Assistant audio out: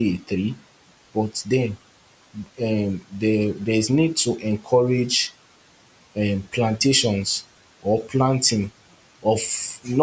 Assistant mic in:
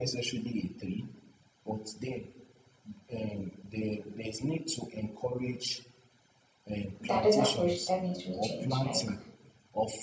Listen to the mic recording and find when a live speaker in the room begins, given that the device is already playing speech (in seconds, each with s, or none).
7.0 s